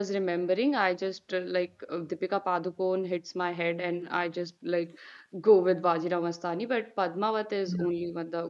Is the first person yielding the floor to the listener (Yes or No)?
No